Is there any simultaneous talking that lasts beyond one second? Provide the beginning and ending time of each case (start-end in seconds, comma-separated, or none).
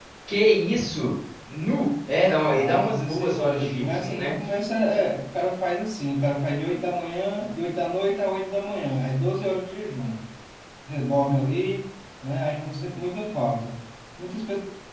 2.4-4.3